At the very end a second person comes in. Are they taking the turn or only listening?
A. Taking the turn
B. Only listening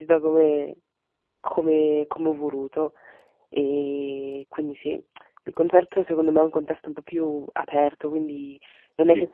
B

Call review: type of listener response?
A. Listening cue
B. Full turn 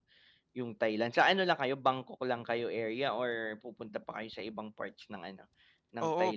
B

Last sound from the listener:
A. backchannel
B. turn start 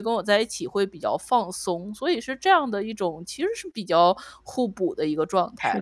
B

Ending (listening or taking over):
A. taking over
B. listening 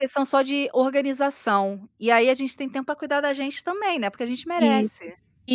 A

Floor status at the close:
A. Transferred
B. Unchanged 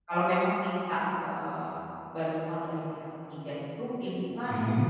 B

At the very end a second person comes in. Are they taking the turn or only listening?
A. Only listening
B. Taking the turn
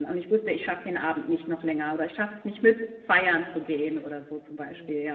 B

